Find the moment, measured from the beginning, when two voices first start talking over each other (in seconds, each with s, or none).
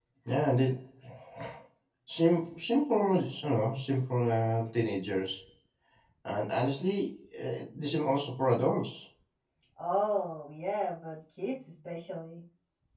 none